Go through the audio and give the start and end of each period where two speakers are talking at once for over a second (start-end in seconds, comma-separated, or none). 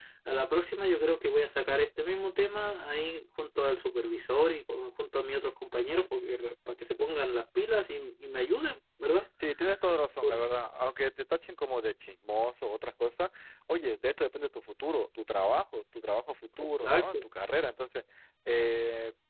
none